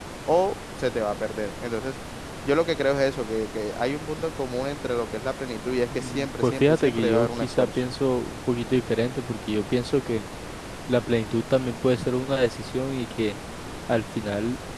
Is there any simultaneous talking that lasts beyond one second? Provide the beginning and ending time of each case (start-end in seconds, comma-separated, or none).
5.9-7.8